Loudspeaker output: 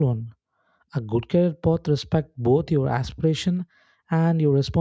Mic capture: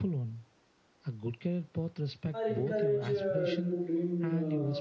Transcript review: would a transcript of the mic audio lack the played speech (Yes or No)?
No